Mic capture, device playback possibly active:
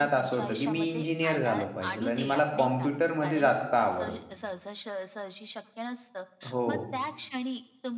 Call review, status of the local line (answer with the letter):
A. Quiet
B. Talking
B